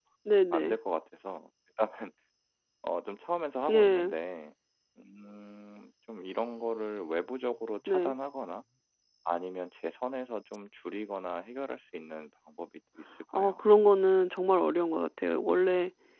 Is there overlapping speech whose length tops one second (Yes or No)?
No